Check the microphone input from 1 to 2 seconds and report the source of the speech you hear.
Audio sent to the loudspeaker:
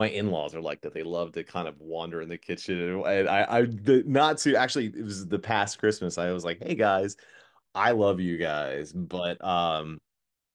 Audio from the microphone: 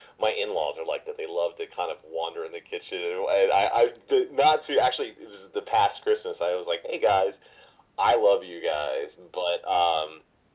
echo only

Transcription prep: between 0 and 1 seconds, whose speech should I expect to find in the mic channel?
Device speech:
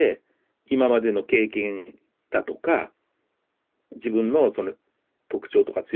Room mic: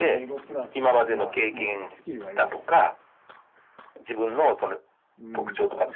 both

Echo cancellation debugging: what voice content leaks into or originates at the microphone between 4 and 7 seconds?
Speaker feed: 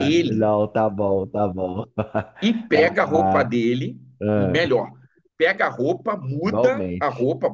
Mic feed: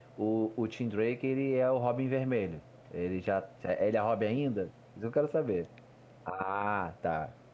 user only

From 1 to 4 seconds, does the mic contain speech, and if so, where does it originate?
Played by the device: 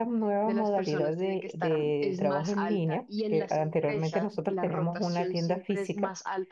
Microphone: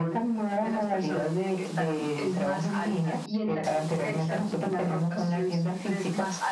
echo only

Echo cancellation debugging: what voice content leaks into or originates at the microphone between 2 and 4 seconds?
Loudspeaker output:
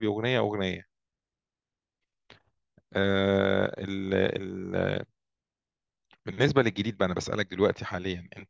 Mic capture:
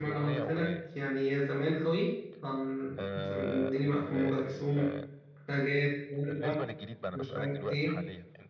both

